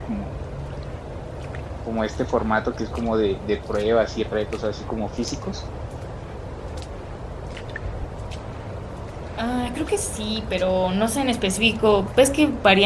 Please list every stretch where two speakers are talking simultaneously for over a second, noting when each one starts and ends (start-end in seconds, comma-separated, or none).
none